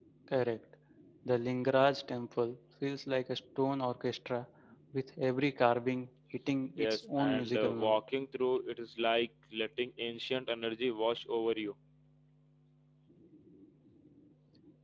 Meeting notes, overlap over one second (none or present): present